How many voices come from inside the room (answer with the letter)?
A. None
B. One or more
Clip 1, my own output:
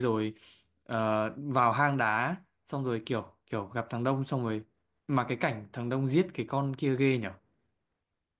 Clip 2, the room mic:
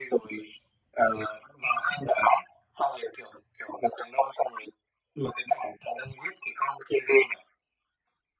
A